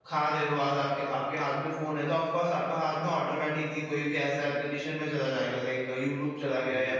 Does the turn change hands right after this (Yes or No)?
No